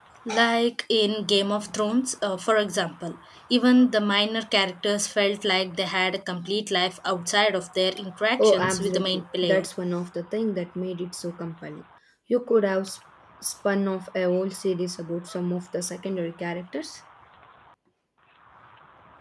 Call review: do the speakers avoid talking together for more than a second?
No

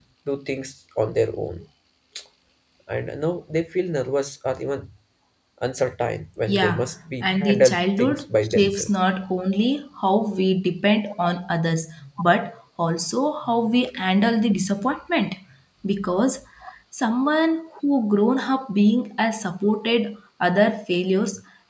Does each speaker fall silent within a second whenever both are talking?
No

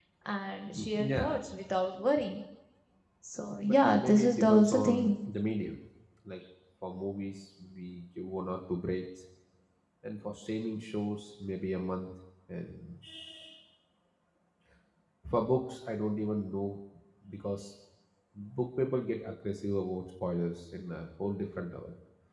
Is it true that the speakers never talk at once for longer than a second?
No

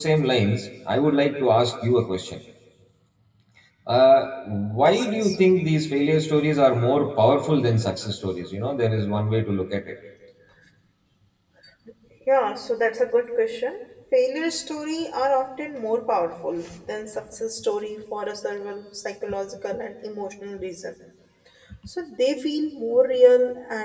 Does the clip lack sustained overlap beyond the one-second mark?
Yes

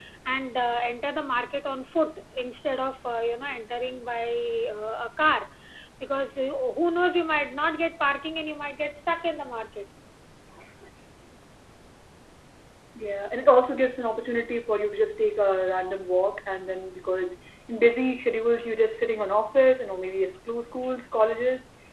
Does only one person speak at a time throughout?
Yes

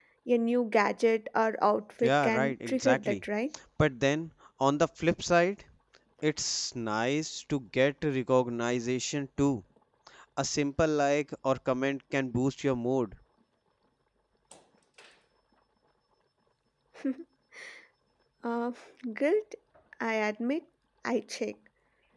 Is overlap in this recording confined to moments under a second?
No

